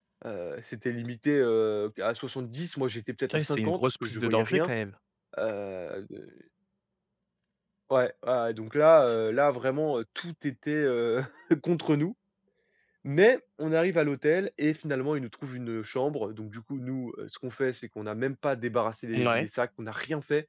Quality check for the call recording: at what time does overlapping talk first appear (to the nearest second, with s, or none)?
3 s